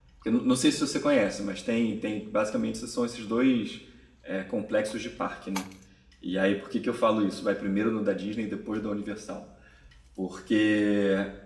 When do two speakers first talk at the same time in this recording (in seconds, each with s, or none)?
none